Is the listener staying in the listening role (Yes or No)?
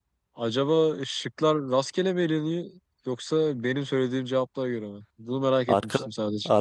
No